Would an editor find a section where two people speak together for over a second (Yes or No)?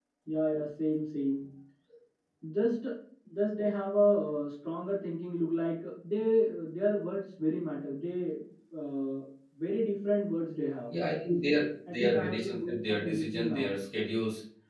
Yes